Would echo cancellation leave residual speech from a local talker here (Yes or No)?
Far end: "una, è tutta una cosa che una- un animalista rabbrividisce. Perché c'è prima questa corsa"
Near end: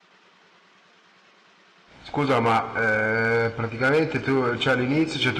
Yes